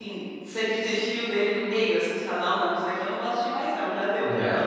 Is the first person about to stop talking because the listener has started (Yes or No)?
Yes